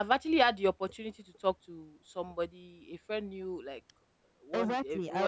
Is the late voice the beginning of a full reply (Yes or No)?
Yes